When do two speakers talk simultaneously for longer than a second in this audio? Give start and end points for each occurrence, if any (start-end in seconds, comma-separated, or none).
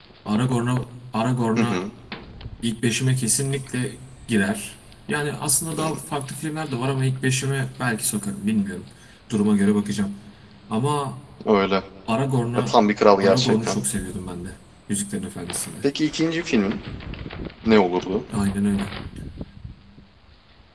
none